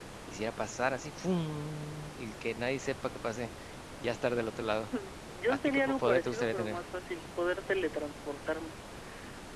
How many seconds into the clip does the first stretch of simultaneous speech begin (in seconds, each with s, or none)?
5.4 s